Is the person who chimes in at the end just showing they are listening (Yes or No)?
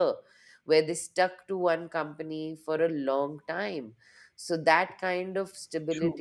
Yes